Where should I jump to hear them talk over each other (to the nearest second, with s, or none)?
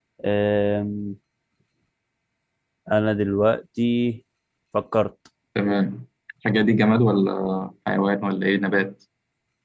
none